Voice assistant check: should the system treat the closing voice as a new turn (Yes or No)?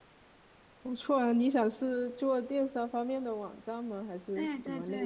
Yes